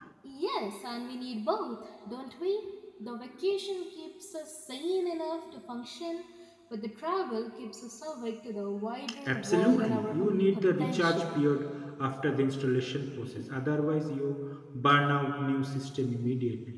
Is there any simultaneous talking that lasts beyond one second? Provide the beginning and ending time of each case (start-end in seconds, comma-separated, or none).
9.3-11.4